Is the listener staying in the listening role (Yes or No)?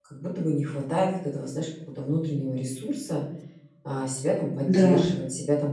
Yes